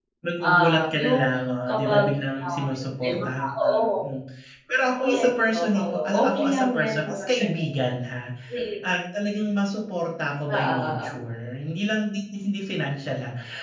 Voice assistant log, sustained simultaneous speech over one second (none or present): present